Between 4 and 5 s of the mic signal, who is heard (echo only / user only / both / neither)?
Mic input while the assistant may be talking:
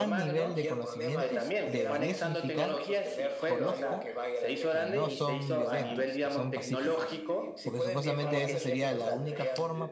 both